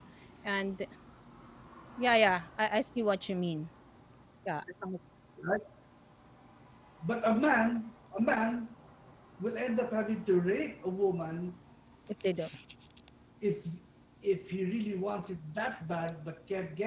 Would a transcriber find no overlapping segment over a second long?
Yes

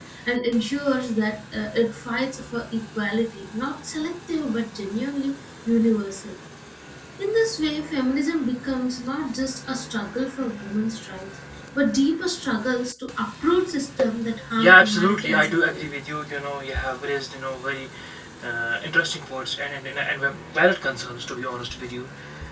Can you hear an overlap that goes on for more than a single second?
Yes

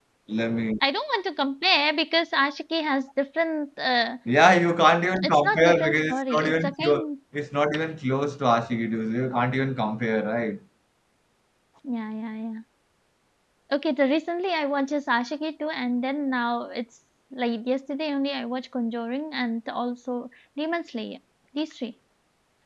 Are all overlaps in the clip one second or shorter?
No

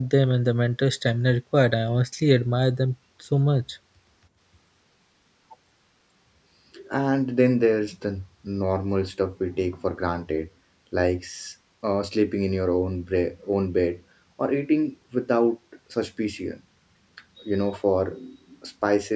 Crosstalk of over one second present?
No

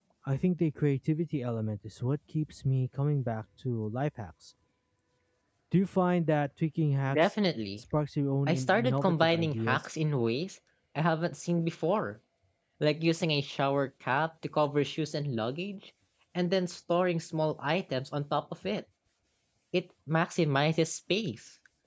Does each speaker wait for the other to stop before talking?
No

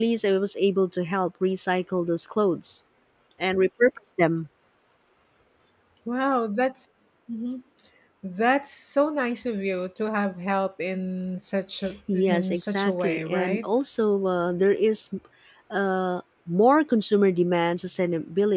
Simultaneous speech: Yes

